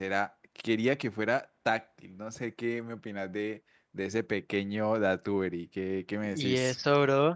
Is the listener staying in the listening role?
No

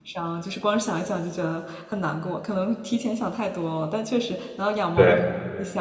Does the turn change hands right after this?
No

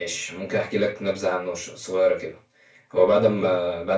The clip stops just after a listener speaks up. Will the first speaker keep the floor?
Yes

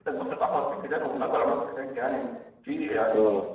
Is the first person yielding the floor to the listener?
No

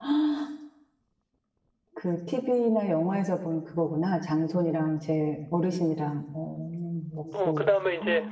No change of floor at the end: No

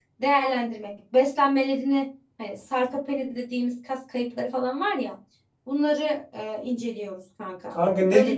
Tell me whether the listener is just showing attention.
No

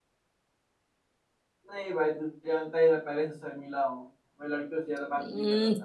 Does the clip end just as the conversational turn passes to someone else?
Yes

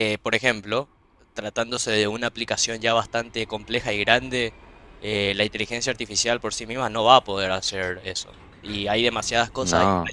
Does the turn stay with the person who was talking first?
Yes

